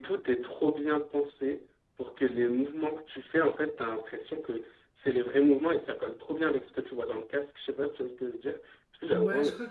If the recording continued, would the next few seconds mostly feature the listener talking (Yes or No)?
Yes